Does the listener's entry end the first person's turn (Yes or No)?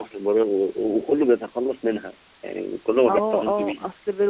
Yes